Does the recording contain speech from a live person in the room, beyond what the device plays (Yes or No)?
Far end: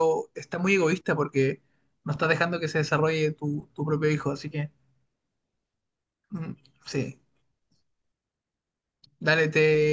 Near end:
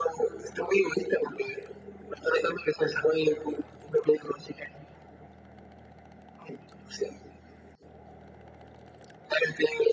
No